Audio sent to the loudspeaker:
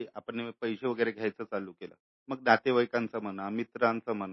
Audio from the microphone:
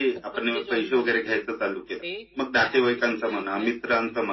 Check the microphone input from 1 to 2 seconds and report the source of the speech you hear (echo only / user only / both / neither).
both